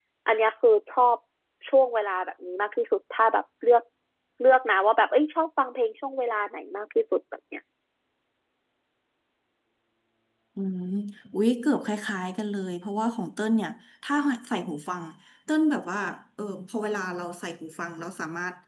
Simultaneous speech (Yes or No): No